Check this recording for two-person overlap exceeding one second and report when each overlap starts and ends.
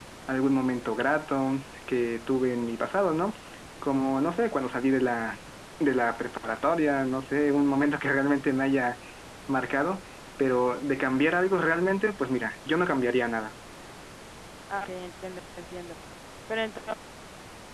none

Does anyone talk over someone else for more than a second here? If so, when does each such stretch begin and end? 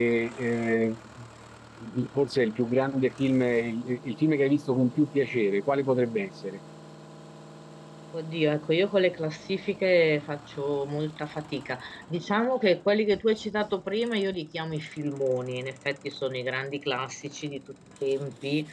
none

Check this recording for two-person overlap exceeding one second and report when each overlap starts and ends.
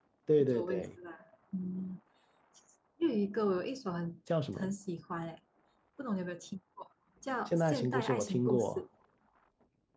7.5-8.8

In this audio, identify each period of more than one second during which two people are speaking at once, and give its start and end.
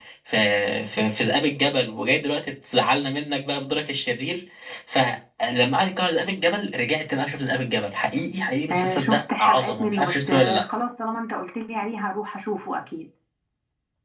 8.7-10.6

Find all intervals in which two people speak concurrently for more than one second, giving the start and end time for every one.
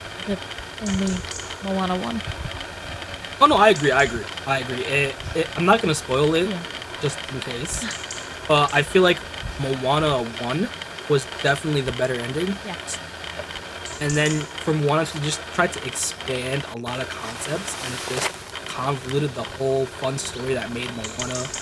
none

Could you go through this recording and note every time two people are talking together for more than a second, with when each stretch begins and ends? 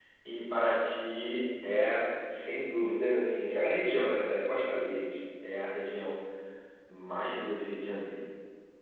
none

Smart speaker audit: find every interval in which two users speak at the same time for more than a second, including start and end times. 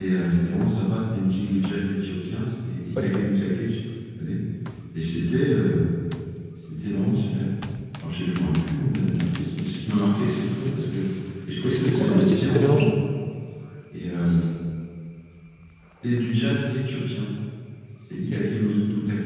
11.7-12.9

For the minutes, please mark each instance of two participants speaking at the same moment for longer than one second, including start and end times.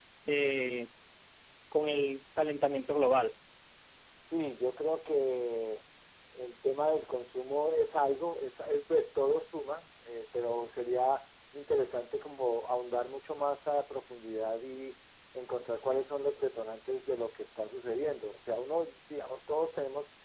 none

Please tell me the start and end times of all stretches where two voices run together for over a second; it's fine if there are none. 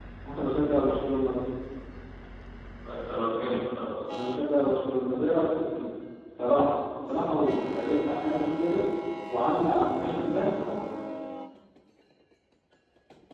none

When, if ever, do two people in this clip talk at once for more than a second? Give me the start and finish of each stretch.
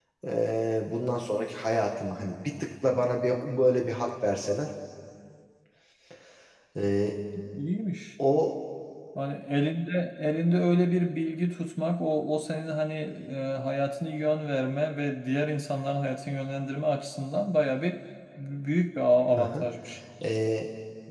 none

